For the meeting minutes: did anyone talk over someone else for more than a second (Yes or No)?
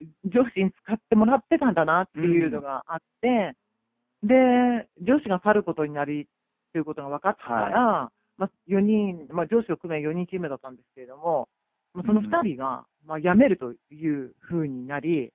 No